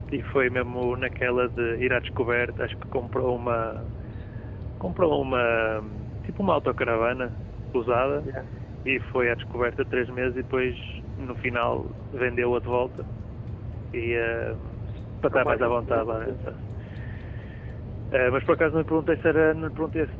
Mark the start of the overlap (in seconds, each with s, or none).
15.3 s